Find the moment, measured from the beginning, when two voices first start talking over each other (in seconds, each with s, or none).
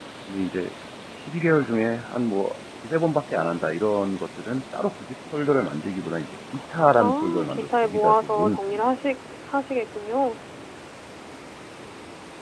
7.0 s